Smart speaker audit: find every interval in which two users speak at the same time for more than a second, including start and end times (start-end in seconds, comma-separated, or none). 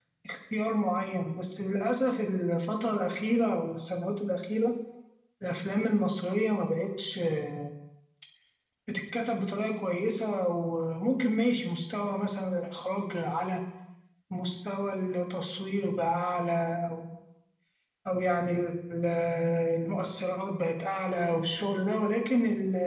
none